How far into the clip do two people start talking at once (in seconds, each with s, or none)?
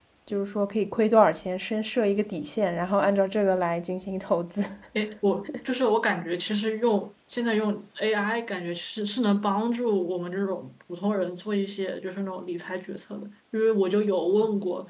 none